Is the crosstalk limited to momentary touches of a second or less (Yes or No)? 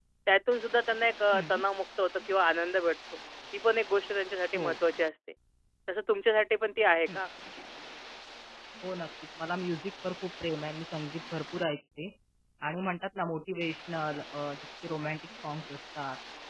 Yes